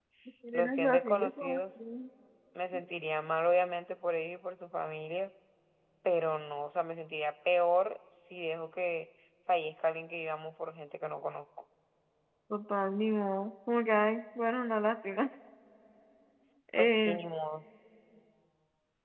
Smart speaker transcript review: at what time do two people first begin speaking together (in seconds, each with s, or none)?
0.5 s